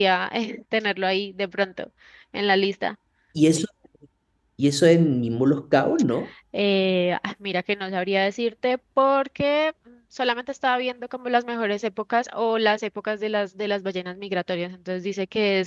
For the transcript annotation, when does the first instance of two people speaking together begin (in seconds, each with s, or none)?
none